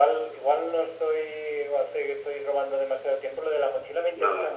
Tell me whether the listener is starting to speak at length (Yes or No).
No